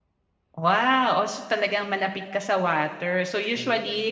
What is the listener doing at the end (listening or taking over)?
listening